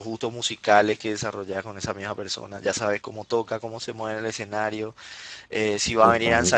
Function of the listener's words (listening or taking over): listening